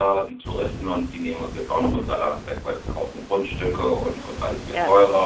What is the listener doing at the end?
listening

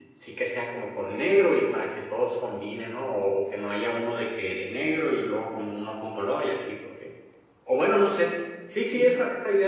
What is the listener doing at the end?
listening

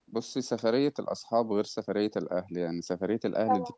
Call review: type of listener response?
listening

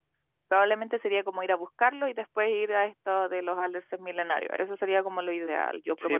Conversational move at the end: taking over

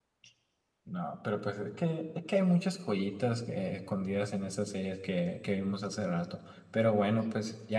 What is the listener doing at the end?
listening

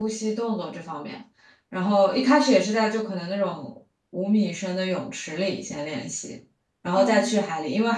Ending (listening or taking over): listening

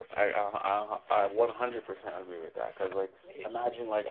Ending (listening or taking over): listening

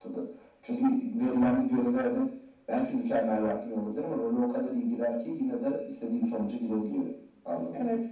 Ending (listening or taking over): taking over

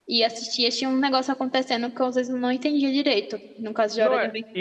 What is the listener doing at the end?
taking over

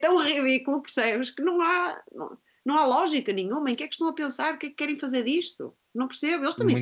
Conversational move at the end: listening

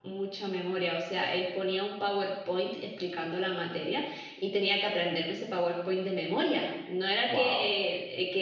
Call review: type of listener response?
listening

